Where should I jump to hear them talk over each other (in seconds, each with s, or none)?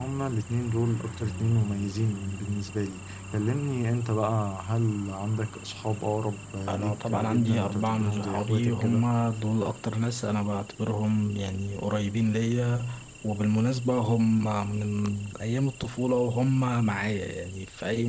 6.7 s